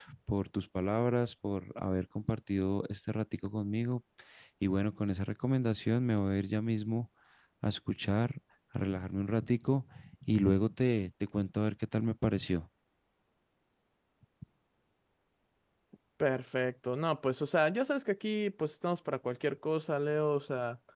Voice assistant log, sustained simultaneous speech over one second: none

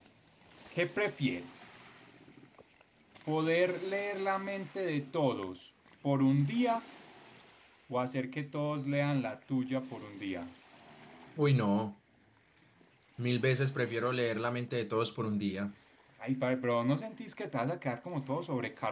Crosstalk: none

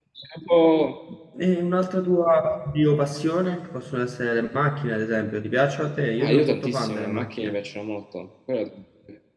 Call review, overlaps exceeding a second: present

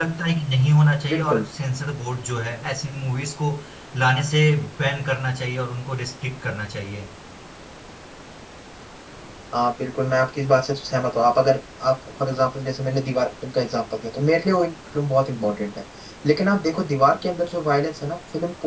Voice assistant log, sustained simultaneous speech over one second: none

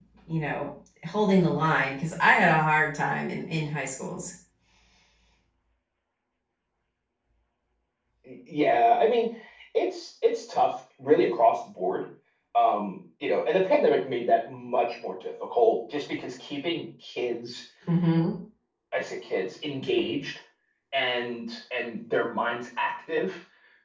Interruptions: none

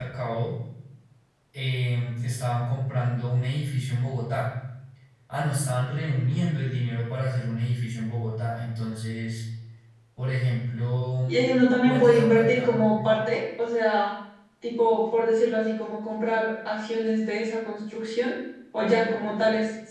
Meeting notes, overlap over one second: present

